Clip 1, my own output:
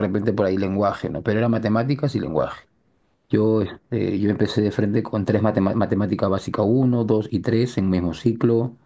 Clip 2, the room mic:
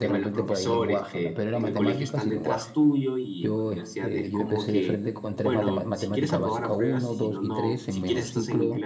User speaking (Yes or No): Yes